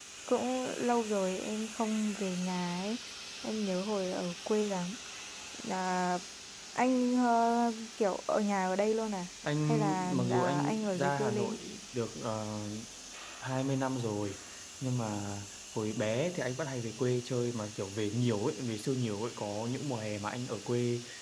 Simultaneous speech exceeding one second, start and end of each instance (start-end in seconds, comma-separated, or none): 9.7-11.6